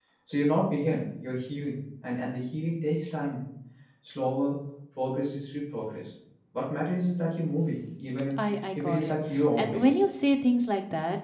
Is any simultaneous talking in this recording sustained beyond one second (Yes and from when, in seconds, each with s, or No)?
Yes, from 8.8 s